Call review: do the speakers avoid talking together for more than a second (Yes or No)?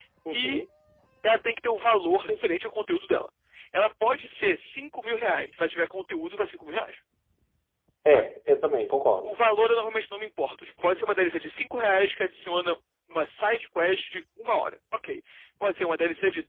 Yes